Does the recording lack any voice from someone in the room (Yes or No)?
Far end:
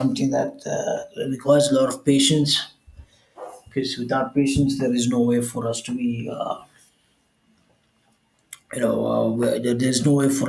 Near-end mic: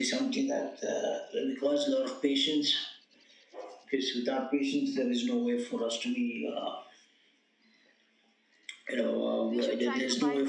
No